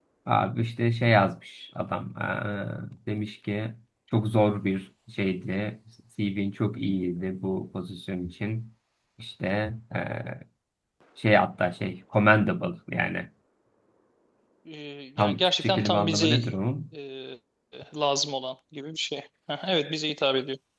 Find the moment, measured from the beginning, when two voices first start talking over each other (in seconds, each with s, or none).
15.2 s